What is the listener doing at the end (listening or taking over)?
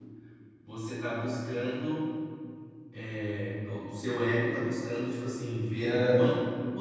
listening